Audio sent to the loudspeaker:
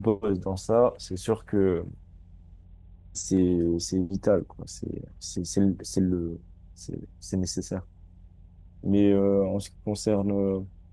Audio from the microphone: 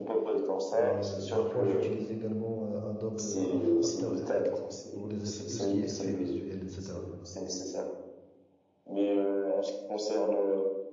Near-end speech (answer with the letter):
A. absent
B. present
B